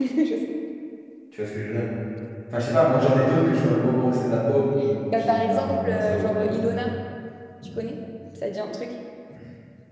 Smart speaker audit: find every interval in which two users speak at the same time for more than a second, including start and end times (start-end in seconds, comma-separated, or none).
5.2-6.6